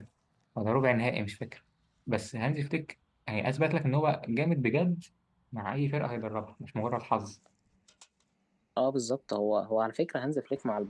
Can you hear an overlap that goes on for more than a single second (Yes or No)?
No